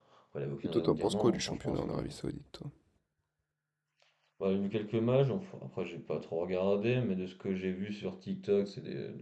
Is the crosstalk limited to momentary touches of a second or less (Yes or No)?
No